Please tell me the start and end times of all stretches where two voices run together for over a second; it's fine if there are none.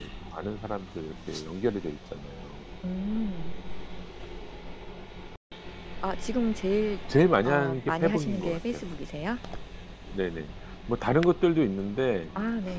7.5-8.9

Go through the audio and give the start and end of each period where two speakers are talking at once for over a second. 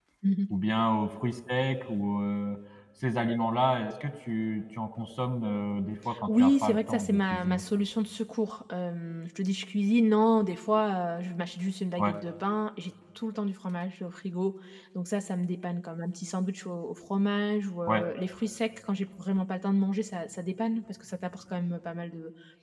6.3-7.6

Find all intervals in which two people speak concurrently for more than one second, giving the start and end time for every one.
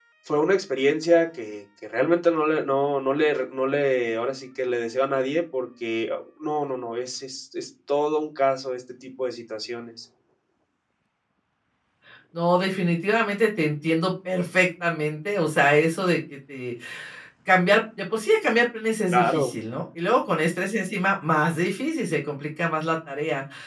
none

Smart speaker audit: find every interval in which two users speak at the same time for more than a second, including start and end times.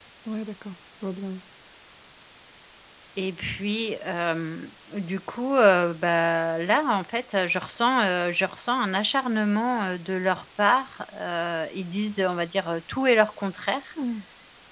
none

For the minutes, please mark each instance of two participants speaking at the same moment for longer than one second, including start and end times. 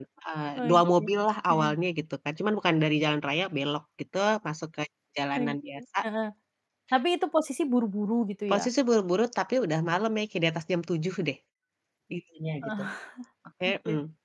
none

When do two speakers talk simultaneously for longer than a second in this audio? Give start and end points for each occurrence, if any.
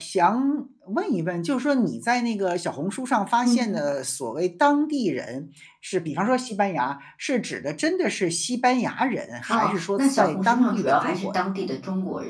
9.5-11.3

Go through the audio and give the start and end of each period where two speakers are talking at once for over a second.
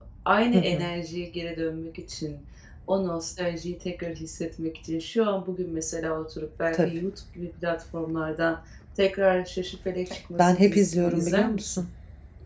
10.4-11.8

